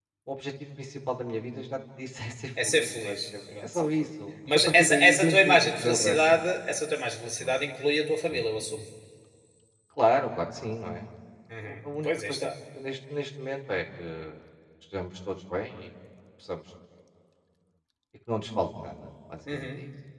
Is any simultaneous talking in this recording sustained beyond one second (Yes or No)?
Yes